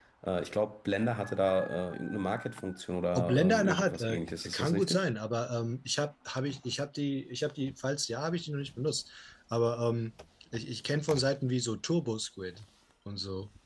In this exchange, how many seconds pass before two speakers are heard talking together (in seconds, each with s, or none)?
3.2 s